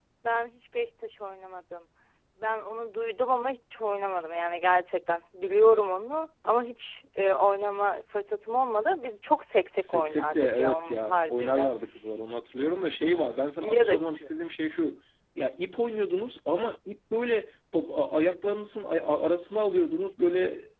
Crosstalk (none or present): present